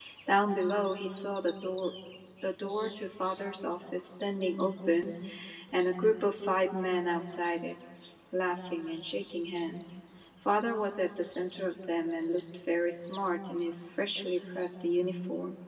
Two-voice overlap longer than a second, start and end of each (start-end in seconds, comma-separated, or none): none